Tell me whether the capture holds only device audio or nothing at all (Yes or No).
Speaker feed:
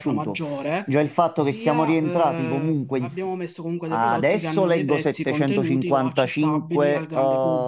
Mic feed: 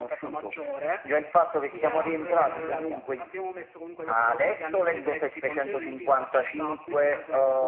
No